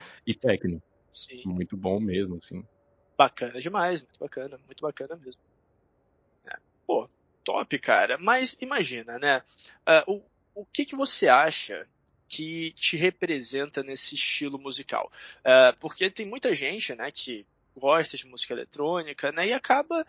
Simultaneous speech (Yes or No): No